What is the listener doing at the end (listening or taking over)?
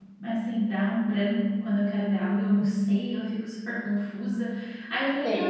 listening